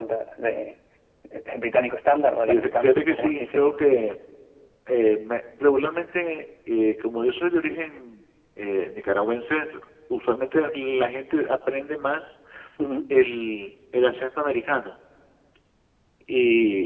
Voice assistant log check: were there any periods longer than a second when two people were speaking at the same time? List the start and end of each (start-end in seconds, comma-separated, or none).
2.4-3.7